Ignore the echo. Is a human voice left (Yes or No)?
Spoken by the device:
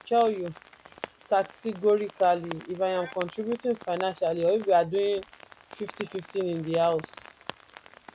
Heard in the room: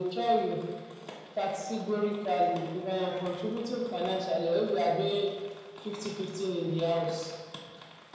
No